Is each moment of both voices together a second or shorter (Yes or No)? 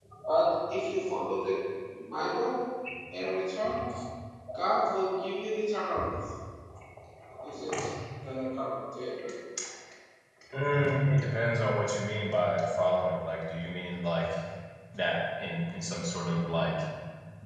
Yes